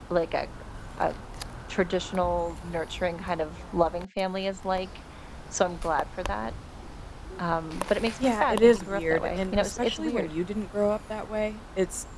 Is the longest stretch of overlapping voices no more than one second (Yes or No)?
No